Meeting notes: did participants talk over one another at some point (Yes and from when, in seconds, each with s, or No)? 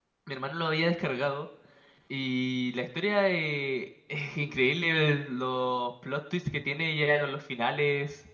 No